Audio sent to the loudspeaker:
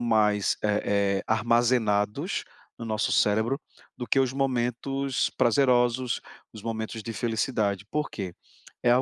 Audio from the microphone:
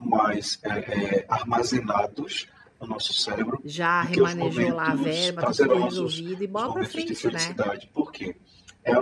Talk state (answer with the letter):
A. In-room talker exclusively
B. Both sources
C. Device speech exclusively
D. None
B